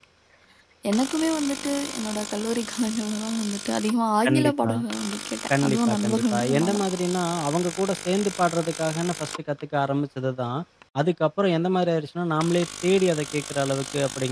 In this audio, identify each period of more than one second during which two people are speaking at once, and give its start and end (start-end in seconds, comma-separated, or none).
5.6-6.8